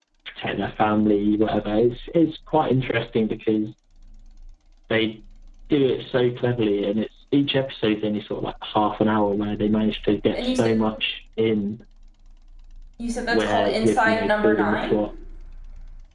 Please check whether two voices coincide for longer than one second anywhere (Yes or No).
Yes